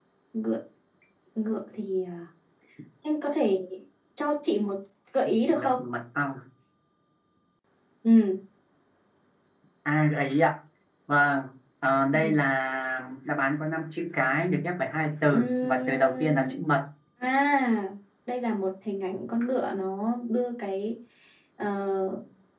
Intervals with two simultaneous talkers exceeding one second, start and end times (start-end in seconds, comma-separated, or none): 15.2-16.5